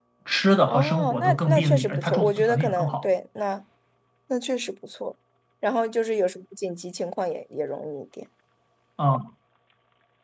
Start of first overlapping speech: 1 s

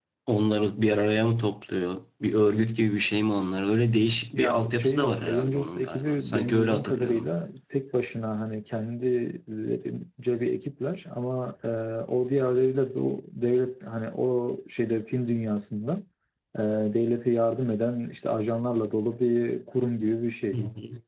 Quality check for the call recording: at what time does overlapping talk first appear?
4 s

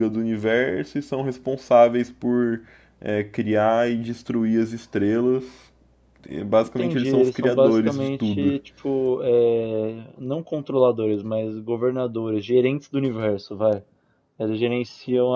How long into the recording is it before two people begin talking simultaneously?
7 s

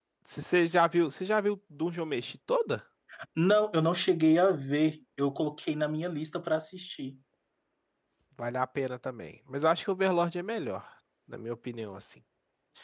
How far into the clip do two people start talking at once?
none

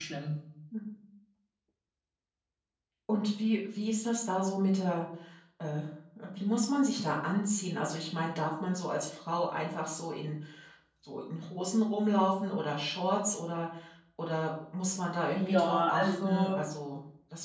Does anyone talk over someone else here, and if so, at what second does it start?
15 s

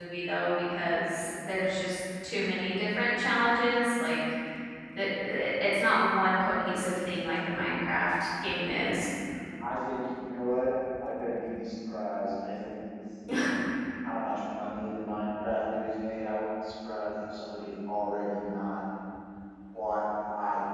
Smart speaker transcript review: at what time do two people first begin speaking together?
none

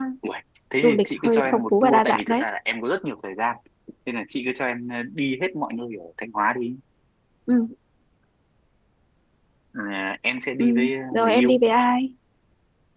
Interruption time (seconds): 1 s

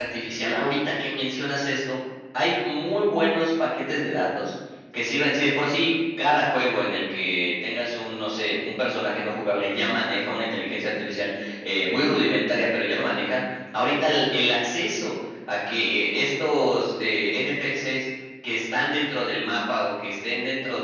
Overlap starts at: none

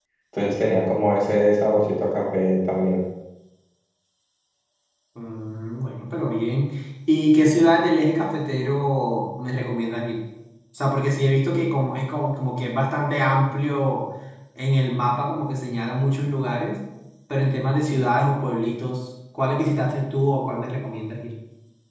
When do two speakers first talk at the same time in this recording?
none

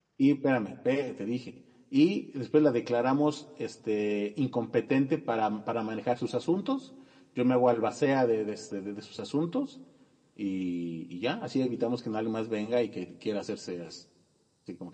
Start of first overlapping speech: none

